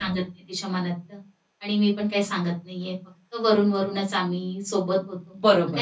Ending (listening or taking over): taking over